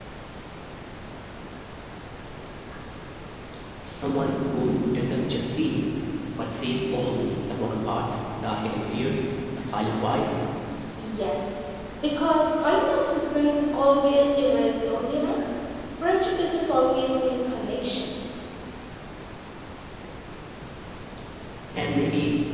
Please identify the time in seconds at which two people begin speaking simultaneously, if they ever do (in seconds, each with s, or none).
none